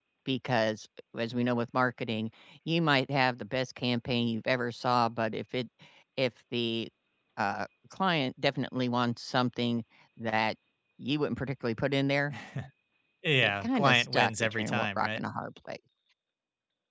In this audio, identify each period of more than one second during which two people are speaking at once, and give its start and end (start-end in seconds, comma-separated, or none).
13.4-15.2